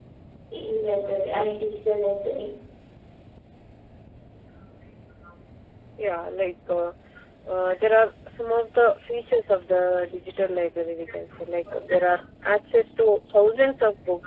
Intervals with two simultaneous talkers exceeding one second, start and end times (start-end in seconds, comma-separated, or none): none